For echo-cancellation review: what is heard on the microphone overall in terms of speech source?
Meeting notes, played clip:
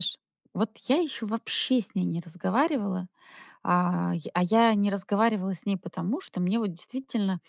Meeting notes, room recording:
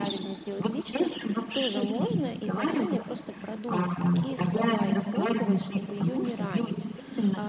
both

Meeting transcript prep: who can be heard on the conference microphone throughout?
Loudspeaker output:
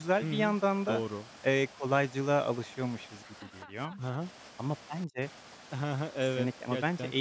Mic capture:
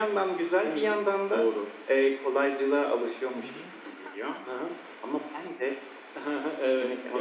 both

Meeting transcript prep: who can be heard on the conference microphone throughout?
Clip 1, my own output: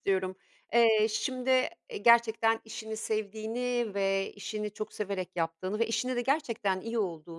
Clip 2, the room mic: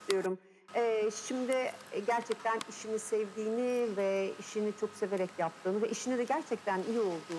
echo only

